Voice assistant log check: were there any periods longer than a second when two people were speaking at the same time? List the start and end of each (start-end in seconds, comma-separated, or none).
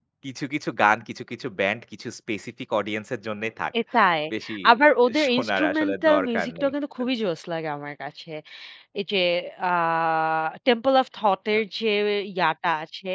5.3-6.7